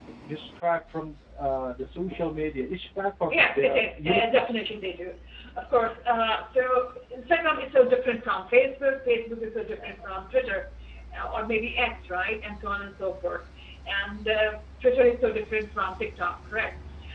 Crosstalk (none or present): present